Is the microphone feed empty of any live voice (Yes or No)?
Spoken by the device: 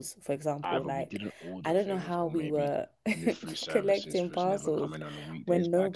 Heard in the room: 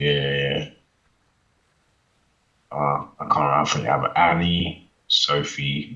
No